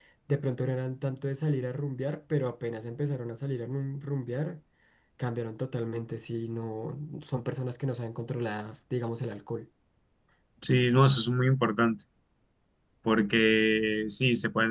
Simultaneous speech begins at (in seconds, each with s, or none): none